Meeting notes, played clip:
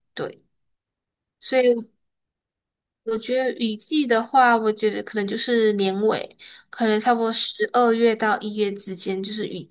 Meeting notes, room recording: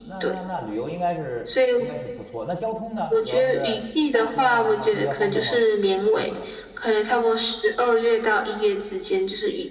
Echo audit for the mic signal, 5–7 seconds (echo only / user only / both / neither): both